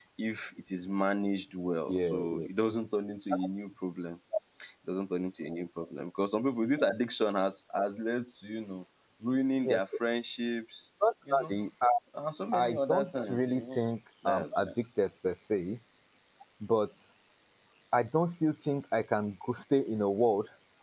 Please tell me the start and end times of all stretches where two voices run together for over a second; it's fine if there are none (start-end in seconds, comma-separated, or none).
12.5-13.8